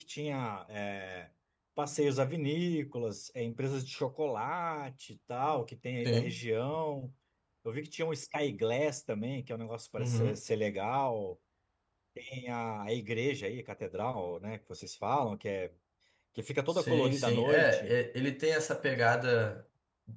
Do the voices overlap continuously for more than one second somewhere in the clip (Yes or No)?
Yes